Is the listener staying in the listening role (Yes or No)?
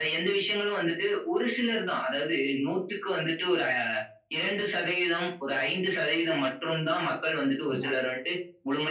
Yes